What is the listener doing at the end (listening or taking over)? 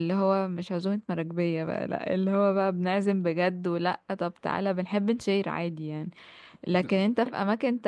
listening